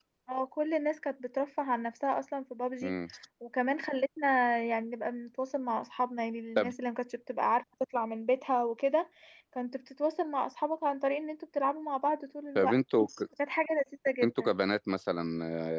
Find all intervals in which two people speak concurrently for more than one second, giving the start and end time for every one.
none

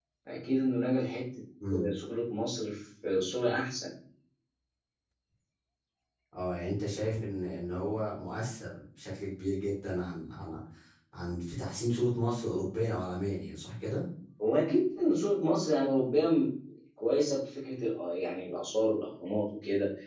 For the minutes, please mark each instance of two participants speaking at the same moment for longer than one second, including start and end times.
none

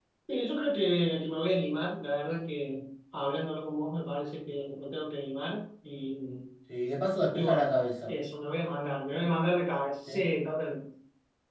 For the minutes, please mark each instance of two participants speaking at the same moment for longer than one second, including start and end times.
none

